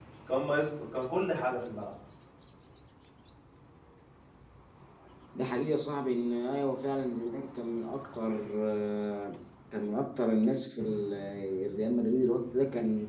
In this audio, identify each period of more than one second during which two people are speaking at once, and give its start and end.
none

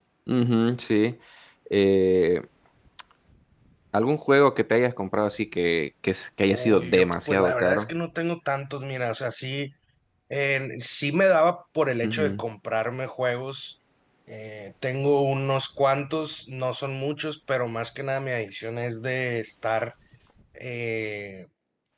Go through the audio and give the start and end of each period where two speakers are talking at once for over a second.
6.5-7.9

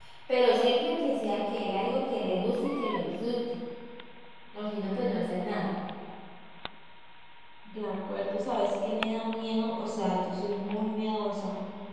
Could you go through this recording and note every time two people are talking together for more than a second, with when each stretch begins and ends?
none

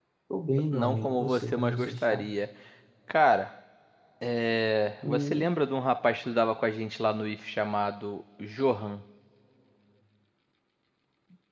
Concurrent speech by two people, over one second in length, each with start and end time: 0.7-2.2

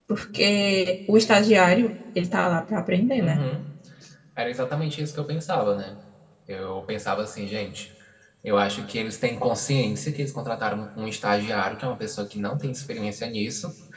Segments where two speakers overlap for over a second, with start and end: none

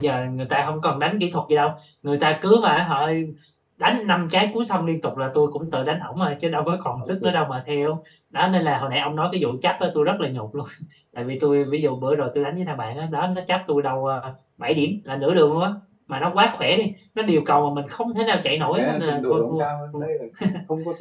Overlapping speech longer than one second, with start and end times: 18.6-20.0

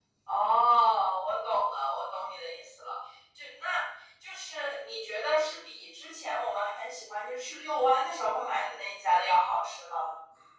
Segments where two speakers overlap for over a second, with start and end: none

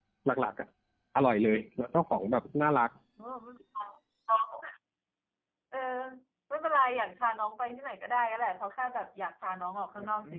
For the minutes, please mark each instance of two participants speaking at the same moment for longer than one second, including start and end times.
none

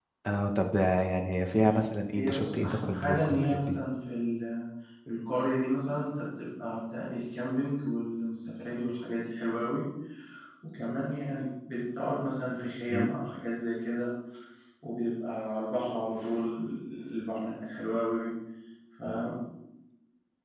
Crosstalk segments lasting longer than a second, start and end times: 2.1-3.8

